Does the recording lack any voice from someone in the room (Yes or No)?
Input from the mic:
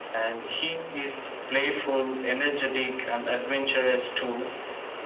Yes